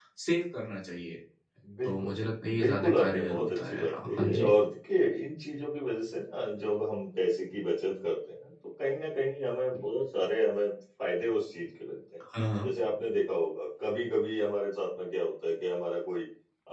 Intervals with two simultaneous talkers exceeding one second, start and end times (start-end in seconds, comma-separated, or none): 2.6-4.5